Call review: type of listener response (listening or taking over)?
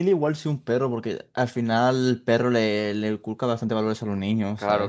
taking over